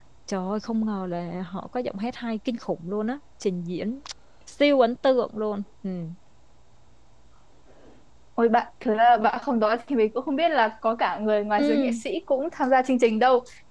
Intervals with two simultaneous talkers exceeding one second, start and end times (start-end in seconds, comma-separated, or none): none